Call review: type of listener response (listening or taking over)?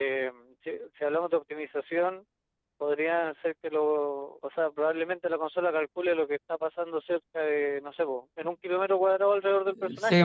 taking over